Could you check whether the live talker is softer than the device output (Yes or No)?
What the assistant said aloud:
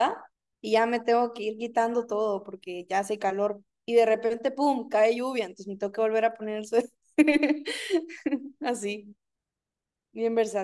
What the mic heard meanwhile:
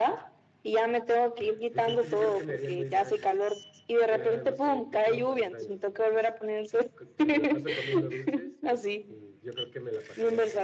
Yes